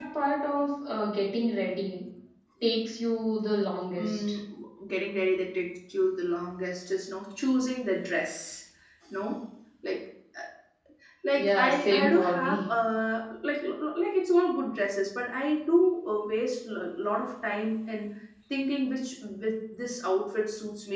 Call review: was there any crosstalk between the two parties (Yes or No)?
Yes